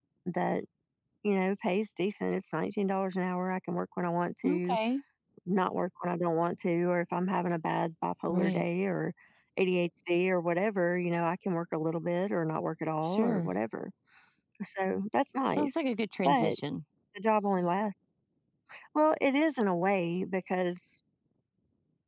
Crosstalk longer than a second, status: none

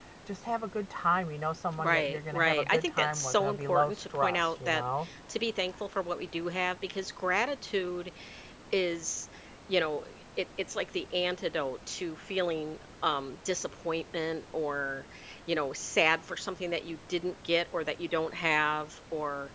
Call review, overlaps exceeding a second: present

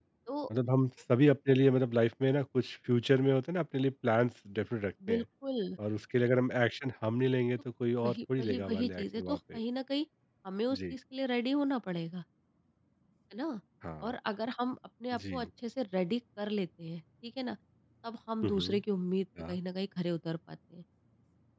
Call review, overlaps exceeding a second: present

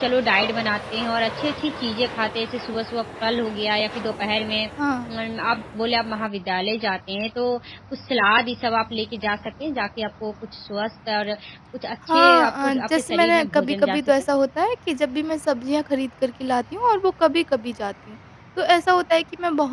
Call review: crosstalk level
present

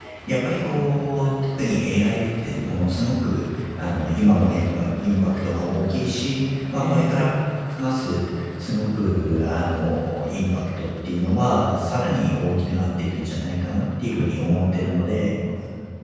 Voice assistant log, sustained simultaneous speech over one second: present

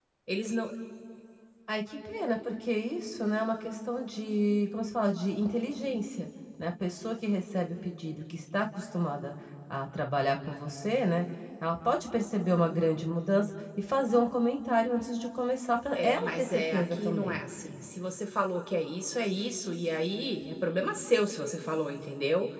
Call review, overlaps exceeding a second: present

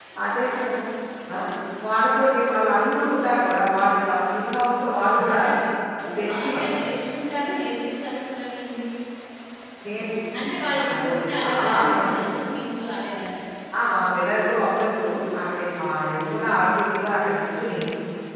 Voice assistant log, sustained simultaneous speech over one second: present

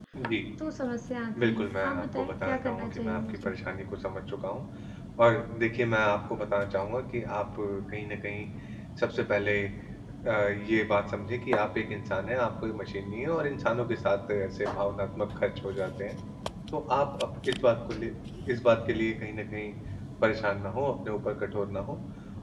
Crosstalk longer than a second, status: present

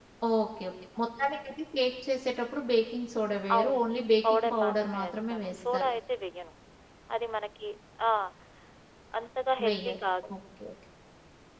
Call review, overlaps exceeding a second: present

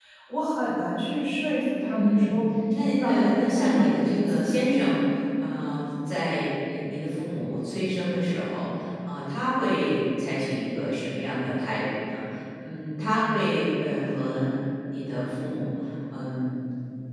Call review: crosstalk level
present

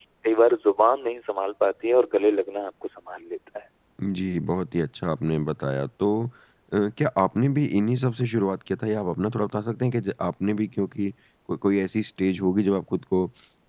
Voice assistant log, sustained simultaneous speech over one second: none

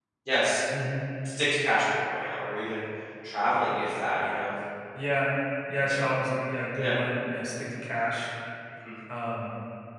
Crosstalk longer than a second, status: none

